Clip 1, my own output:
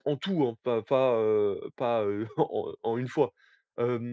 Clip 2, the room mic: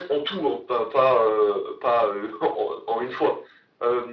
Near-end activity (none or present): none